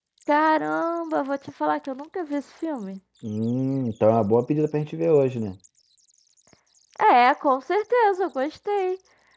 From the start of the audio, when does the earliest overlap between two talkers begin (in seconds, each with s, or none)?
none